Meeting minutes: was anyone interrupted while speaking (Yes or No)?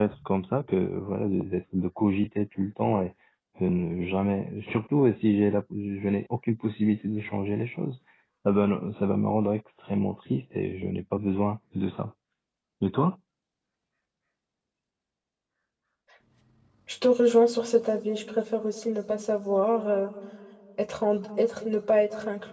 No